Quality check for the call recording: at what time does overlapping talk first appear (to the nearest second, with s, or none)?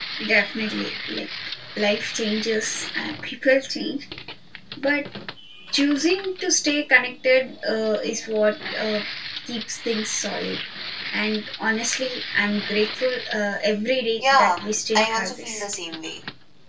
14 s